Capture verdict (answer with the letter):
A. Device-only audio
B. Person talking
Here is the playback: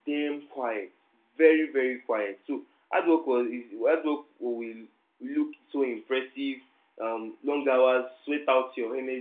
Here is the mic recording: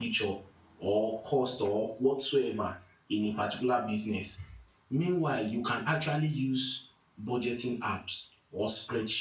B